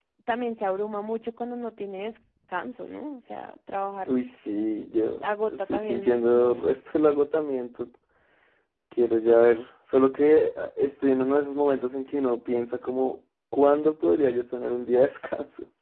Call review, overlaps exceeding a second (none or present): present